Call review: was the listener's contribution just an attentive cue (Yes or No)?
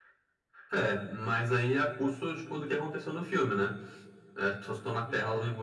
Yes